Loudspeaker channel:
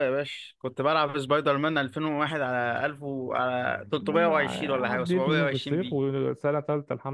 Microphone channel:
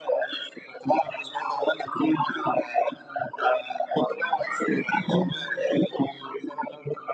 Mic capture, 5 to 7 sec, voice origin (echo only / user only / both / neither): echo only